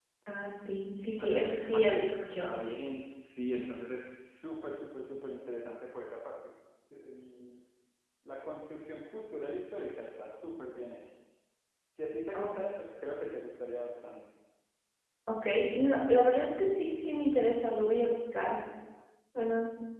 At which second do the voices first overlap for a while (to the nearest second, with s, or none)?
1 s